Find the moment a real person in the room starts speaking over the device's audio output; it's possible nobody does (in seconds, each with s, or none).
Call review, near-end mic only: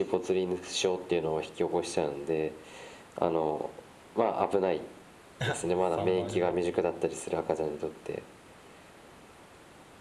5.4 s